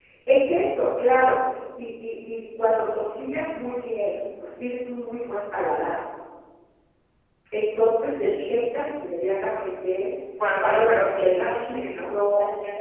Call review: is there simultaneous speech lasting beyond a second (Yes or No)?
Yes